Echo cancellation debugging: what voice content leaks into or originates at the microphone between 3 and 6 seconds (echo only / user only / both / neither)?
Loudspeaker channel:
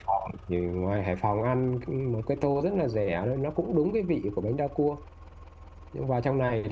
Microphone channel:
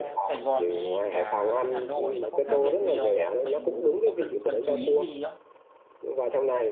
both